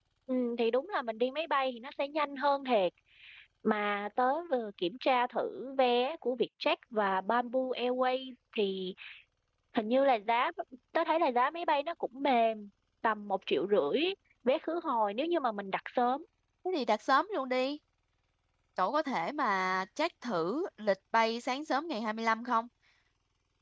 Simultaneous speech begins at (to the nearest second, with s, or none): none